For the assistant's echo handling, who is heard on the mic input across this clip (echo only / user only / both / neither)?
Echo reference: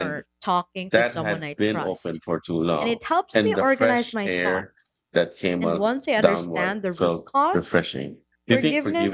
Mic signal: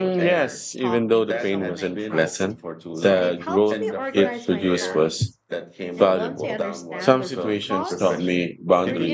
both